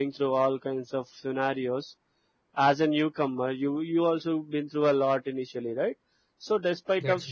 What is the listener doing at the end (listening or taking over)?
listening